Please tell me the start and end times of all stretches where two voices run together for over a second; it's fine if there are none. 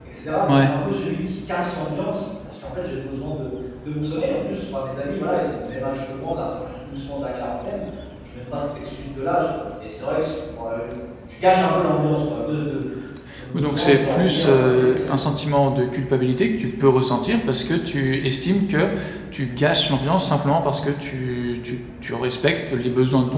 13.5-15.2

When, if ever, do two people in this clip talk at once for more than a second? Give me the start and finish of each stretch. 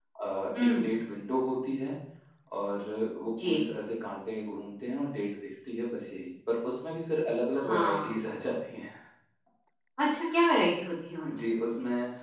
none

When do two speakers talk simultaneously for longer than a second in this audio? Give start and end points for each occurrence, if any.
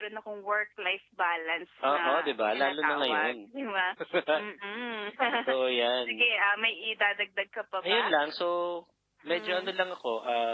1.9-3.3

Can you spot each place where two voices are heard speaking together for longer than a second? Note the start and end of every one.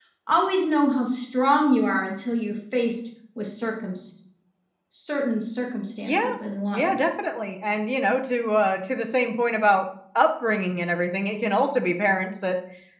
none

